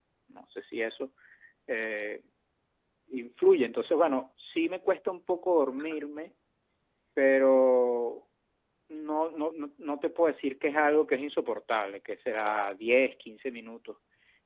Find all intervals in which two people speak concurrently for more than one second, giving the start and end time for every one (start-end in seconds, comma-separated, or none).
none